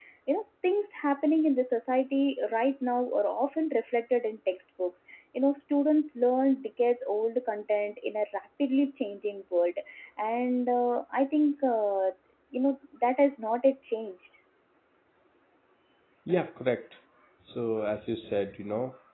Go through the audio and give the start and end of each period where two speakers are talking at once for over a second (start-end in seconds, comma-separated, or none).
none